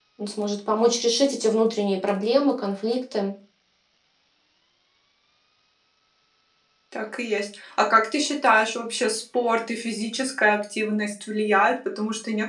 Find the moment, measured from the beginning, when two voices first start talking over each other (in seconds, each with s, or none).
none